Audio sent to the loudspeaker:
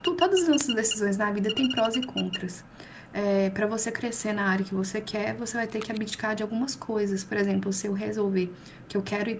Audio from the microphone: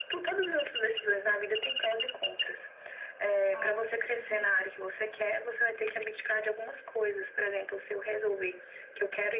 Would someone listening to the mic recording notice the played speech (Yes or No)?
Yes